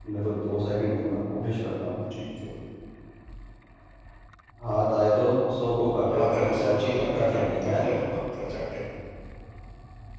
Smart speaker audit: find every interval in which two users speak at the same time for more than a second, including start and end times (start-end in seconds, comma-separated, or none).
6.0-7.8